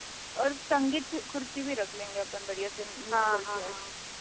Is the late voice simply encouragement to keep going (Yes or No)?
No